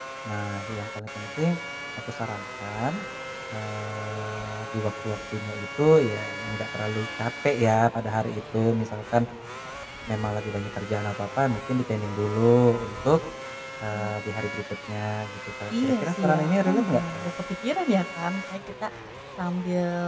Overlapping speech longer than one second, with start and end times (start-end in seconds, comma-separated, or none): 15.7-17.3